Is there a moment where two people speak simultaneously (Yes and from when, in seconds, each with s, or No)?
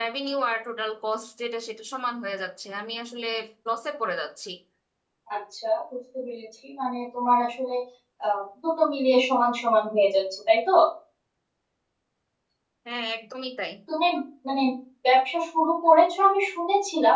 No